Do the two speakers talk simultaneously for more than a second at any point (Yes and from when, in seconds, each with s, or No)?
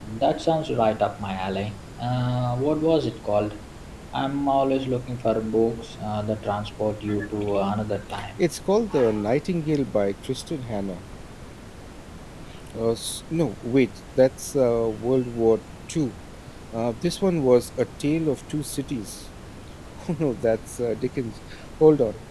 No